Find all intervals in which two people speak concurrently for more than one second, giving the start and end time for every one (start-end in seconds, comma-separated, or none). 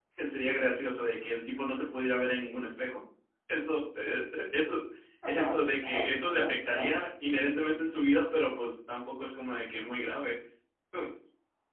5.3-7.0